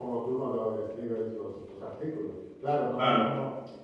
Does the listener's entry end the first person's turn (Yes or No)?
No